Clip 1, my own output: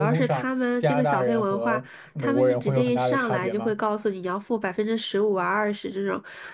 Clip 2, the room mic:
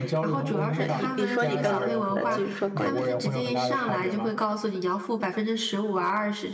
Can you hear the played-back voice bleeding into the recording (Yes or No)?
Yes